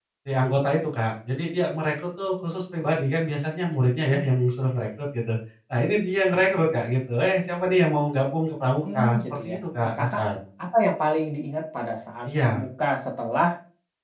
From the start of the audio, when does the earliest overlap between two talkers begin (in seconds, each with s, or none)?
8.9 s